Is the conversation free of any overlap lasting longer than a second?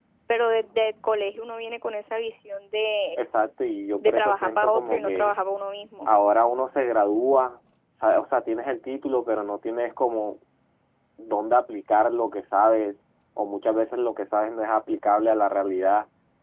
No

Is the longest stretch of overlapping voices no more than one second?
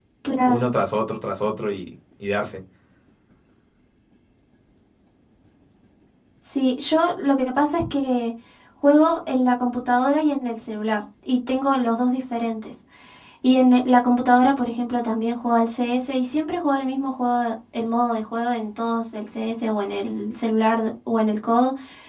Yes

